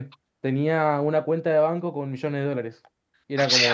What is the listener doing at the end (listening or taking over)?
listening